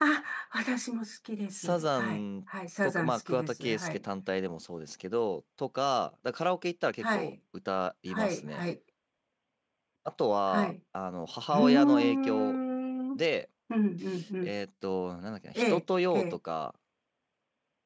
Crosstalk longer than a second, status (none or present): present